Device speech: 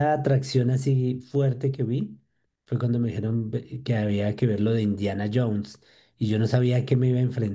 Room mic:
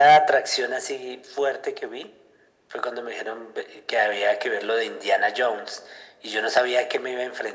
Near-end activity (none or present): none